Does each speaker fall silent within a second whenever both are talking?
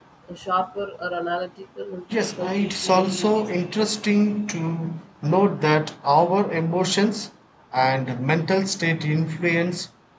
No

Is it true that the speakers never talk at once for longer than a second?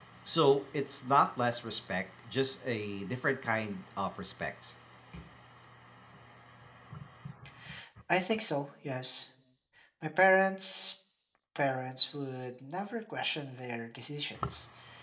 Yes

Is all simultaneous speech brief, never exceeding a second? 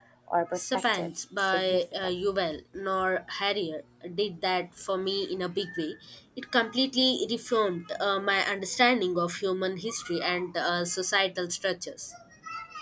No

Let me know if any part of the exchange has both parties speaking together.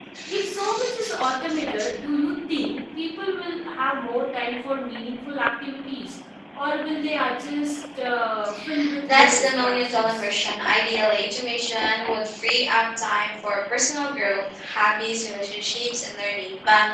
Yes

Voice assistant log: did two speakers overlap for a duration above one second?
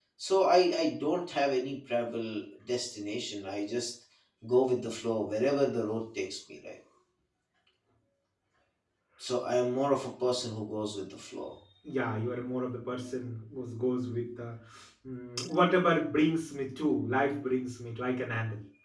No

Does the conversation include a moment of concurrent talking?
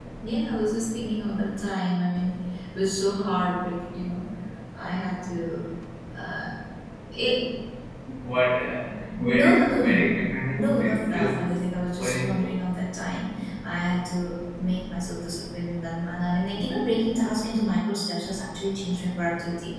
Yes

